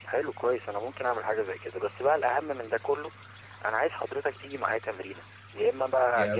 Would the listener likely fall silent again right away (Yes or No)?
Yes